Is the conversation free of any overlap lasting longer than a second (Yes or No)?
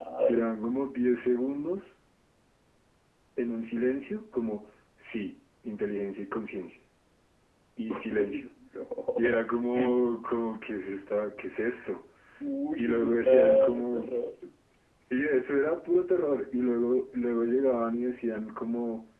No